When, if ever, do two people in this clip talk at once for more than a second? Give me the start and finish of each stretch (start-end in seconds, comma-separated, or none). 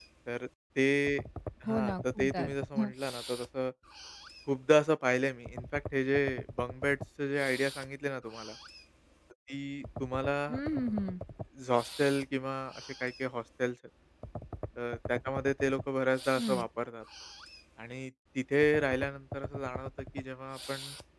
1.7-2.9